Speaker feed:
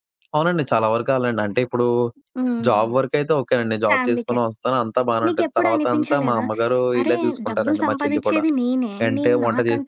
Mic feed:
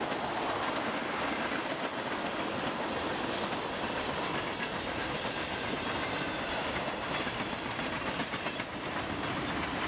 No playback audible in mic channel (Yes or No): Yes